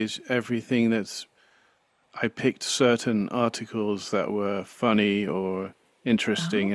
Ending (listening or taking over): listening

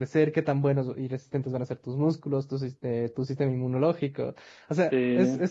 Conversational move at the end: listening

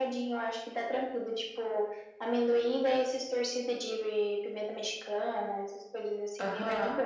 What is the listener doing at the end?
taking over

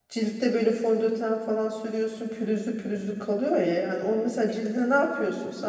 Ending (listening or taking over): listening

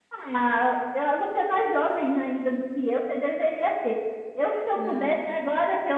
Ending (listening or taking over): listening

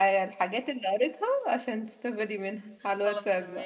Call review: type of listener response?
taking over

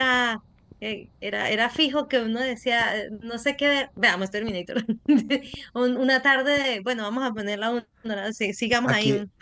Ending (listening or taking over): taking over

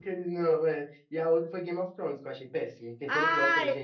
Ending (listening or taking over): taking over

